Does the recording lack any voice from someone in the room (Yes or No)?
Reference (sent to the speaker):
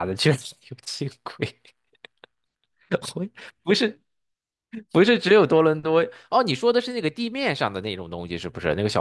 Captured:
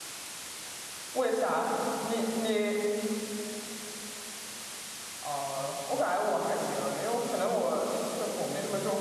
No